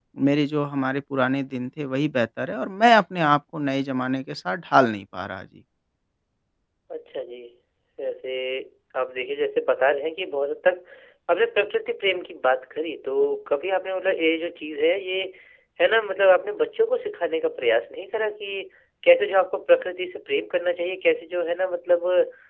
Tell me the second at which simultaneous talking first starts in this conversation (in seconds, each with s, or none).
none